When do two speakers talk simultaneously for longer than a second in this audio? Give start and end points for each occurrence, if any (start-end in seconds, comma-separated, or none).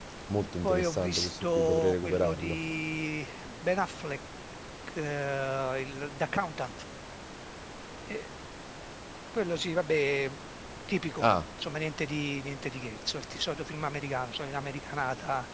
0.6-2.6